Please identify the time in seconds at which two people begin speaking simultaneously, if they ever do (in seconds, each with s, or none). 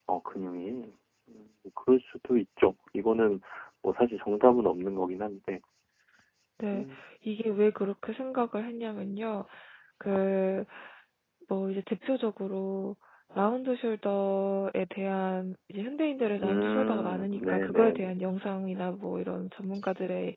16.4 s